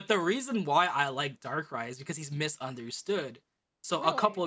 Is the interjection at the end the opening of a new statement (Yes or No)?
No